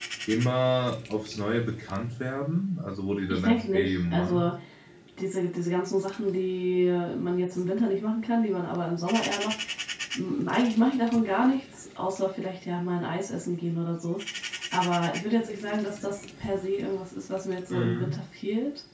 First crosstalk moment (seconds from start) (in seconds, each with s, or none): 3.3 s